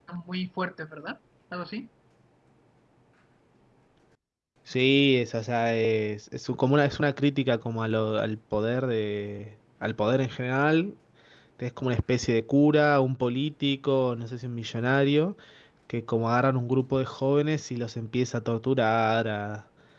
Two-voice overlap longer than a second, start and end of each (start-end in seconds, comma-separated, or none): none